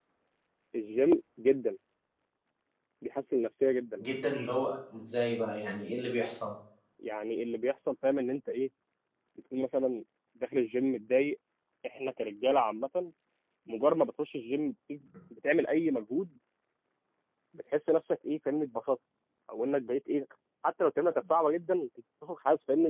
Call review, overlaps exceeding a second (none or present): none